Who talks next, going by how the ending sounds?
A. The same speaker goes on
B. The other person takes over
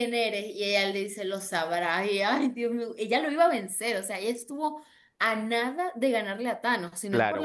B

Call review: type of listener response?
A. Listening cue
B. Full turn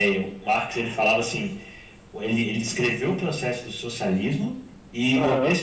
B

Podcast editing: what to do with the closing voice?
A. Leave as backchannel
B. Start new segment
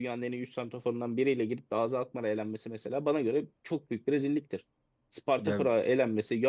A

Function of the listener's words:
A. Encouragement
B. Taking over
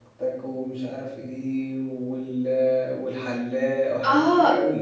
B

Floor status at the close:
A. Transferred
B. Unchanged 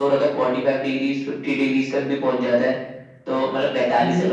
B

